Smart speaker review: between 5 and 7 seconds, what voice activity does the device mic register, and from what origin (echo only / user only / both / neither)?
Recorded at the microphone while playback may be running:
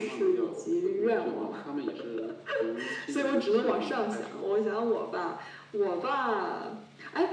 echo only